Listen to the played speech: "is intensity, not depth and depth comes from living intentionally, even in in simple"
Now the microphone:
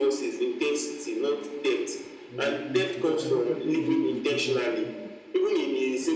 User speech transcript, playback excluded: Yeah, it's because I feel every day is different for people.

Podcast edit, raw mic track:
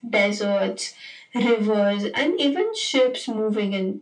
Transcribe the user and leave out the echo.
none

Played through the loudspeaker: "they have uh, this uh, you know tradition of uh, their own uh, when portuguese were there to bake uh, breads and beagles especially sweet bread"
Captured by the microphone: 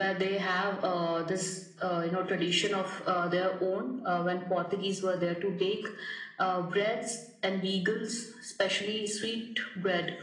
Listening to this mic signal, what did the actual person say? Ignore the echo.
none

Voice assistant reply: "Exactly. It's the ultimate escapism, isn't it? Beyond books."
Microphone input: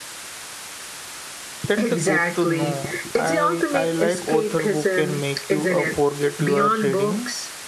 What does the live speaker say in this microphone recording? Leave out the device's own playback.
That's a good to know. I I like author who can make you uh, forget you are reading.

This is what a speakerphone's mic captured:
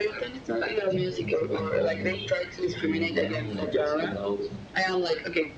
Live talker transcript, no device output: yeah, I think that I don't know if you agree or what you think.

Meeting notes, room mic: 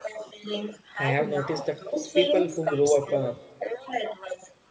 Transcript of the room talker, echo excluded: I have noticed that people who grow up uh,

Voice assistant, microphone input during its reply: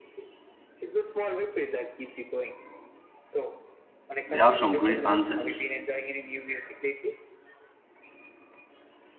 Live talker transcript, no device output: They have some great anthems.

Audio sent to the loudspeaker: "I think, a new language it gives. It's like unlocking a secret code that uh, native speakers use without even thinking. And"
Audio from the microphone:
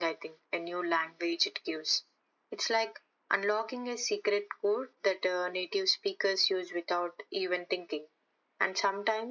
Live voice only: none

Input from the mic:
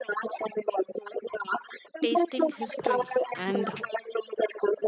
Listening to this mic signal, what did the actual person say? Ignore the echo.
tasting history and

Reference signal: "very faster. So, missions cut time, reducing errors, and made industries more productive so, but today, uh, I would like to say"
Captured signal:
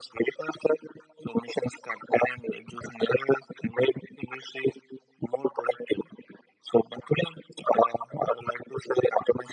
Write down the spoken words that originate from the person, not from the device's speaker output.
none

